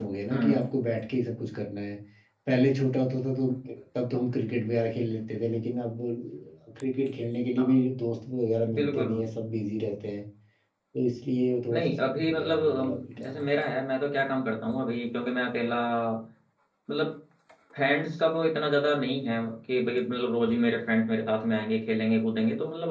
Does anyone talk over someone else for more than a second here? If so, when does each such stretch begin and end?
11.7-13.4

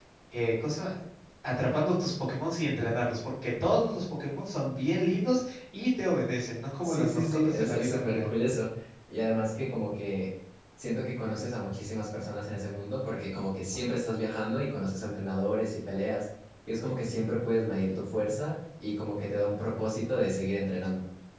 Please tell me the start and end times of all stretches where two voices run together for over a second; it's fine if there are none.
6.8-8.3

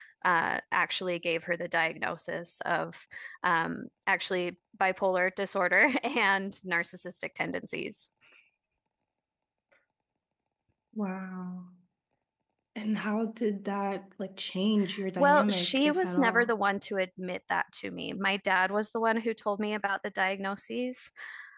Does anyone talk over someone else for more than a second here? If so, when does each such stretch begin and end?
15.2-16.5

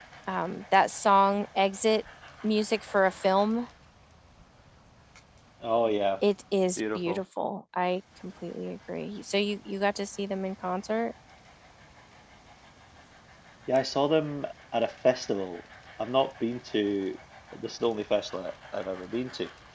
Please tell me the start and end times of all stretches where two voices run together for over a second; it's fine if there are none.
none

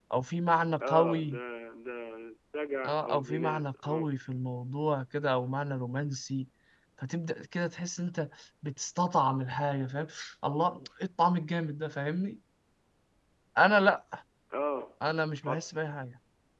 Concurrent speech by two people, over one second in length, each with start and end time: 2.8-4.0

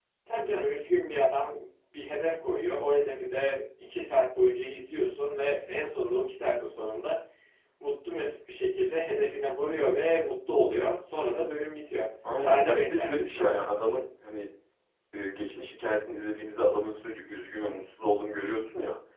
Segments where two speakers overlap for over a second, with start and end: 12.4-13.7

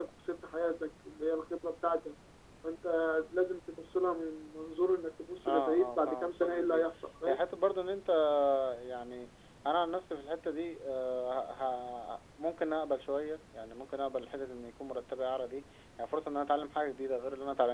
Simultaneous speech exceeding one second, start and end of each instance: 5.5-6.9

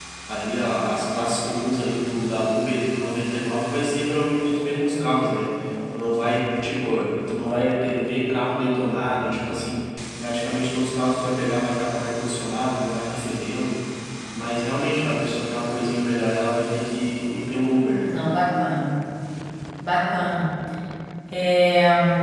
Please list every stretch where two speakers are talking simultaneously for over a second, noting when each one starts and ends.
none

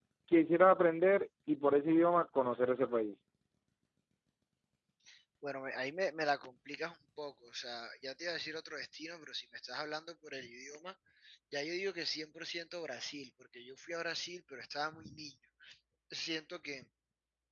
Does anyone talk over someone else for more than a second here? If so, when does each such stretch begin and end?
none

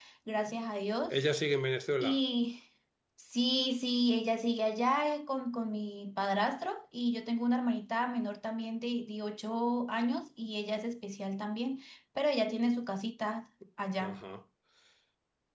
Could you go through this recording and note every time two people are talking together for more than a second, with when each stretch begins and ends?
none

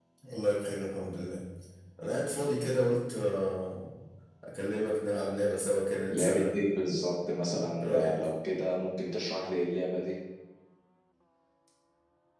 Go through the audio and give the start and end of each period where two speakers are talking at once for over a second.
none

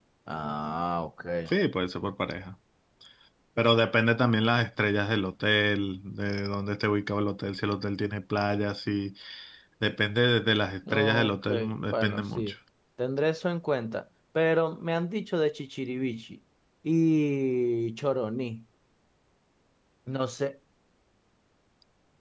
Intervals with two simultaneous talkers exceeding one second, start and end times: 10.9-12.5

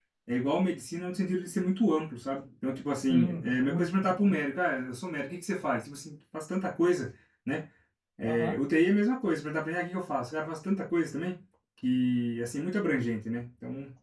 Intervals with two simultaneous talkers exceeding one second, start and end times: 3.1-4.3

